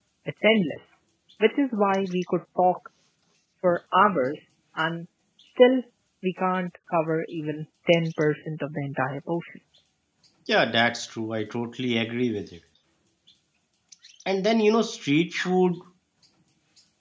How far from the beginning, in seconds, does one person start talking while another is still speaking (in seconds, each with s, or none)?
none